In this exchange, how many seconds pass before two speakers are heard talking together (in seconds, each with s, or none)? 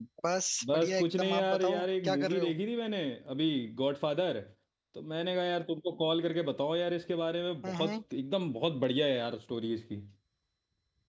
0.7 s